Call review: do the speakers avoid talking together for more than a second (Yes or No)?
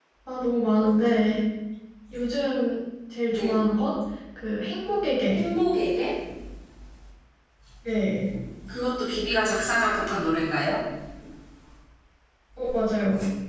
Yes